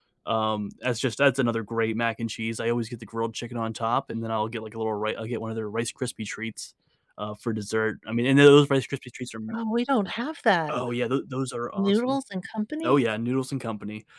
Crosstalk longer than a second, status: none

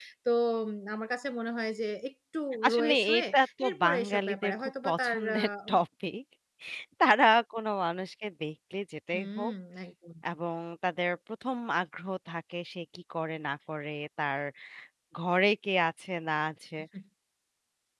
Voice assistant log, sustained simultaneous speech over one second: present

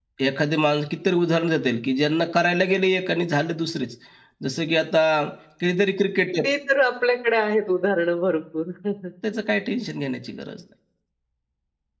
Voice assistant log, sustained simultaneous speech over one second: none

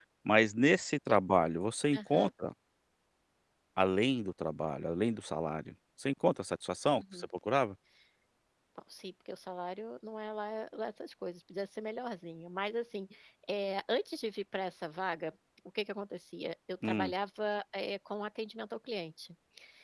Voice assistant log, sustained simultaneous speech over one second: none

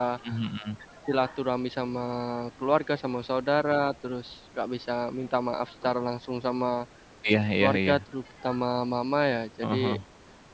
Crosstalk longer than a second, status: none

